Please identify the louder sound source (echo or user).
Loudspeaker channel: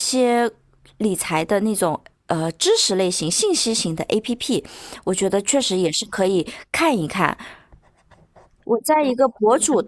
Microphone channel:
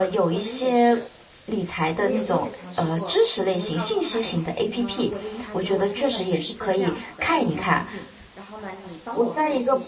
echo